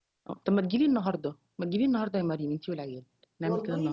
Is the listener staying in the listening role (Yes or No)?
No